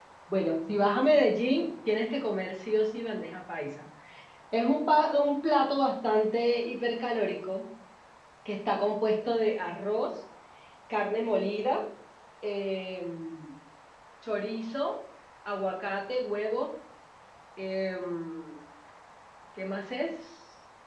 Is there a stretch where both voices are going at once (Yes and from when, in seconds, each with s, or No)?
No